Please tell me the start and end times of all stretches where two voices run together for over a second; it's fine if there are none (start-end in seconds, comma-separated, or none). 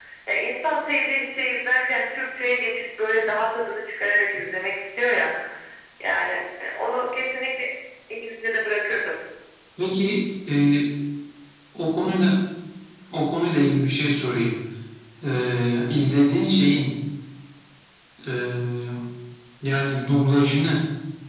none